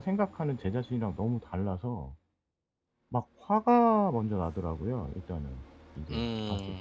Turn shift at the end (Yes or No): Yes